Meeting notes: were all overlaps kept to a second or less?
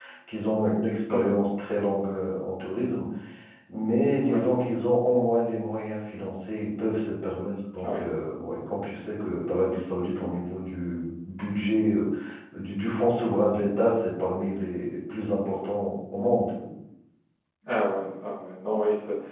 Yes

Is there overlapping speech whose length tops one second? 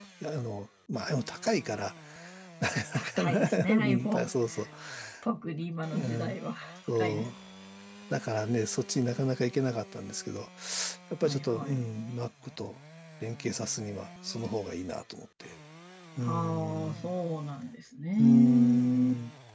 Yes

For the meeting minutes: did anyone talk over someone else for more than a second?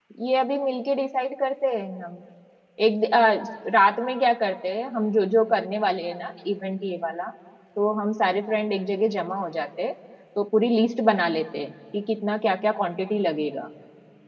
No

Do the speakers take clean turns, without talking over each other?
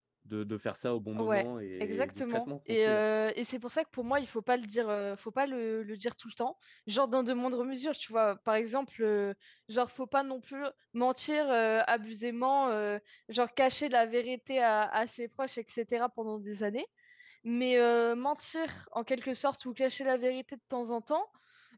No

